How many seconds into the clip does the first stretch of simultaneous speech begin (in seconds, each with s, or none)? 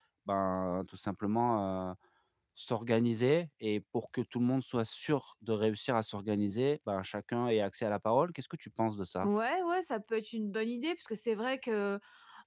none